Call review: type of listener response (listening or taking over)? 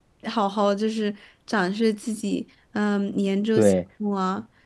listening